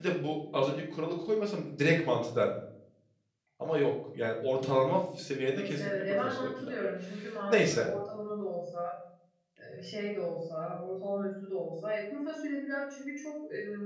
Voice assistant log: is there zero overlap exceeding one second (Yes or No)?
No